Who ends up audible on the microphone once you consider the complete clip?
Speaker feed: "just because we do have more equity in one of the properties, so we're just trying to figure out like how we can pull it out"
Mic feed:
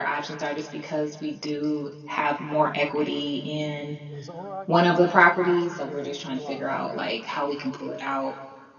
both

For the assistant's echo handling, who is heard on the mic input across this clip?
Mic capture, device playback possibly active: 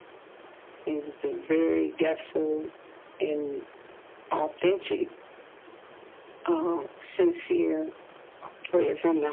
echo only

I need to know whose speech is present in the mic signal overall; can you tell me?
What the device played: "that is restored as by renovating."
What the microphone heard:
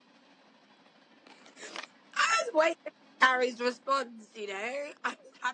user only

